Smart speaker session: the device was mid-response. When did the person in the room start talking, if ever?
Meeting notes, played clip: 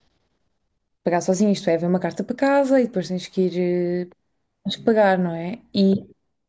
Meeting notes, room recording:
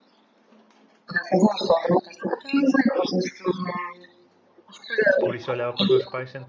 5.2 s

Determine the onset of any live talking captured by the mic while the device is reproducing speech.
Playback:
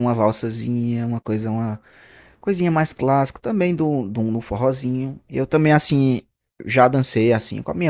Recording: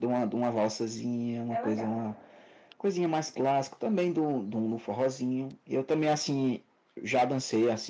1.5 s

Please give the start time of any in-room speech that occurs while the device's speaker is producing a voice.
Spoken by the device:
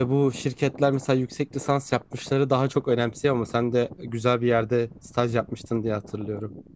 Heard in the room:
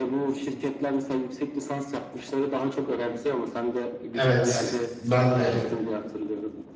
4.1 s

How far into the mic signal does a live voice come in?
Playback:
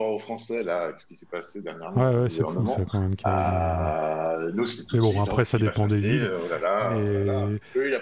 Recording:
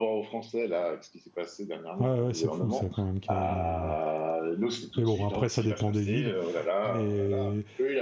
none

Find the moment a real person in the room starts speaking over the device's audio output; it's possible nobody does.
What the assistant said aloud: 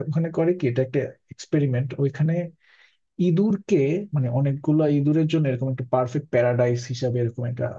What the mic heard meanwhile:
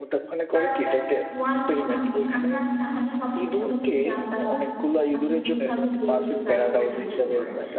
0.5 s

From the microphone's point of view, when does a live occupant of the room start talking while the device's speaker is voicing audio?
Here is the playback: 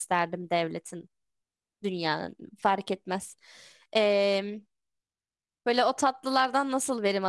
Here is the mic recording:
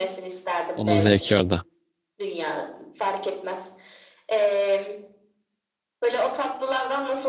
0.7 s

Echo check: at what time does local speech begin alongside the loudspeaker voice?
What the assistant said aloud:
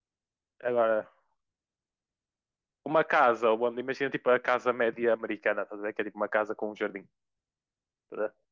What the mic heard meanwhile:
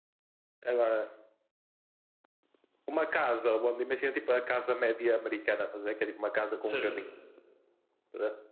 6.5 s

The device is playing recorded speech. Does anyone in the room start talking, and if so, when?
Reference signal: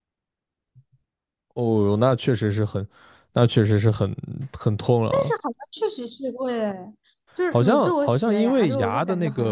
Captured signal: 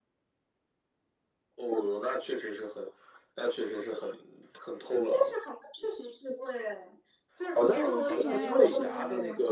7.7 s

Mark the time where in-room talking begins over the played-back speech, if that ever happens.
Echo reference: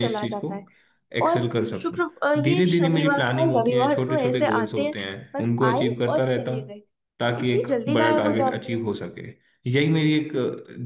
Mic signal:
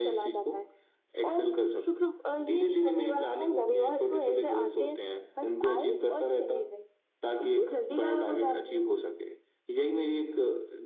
none

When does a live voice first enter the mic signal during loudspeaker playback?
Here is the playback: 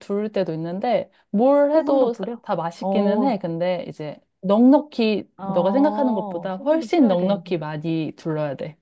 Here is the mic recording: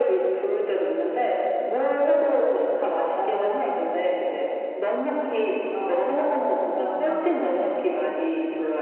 7.0 s

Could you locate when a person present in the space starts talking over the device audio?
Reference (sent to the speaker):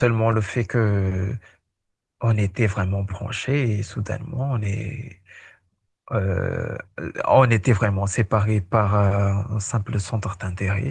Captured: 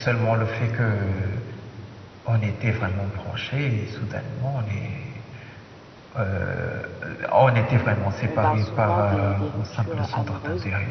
8.2 s

